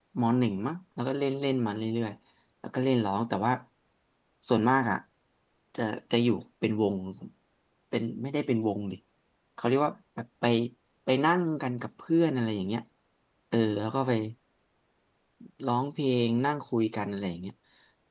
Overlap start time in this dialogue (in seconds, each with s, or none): none